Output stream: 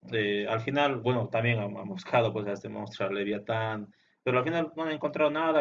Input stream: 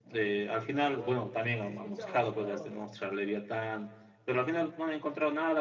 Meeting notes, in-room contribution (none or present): present